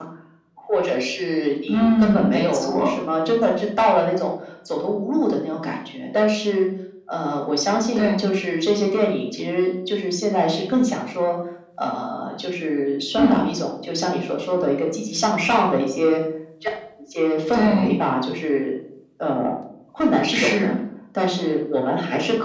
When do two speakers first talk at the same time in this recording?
1.7 s

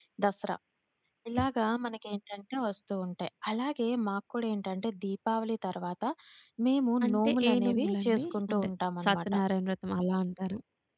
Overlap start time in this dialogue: 7.0 s

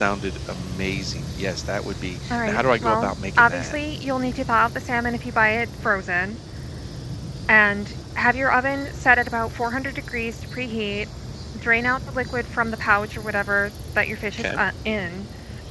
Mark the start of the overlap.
2.3 s

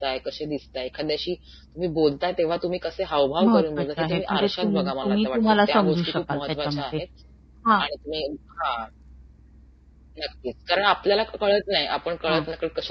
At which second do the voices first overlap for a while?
3.4 s

